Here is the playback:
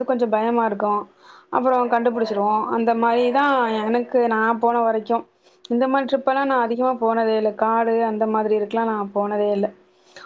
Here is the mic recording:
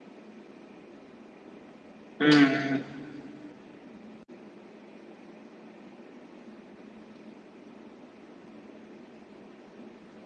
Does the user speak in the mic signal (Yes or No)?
Yes